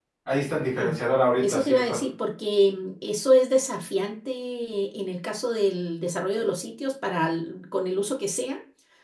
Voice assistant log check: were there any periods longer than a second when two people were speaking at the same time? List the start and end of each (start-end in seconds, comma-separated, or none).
none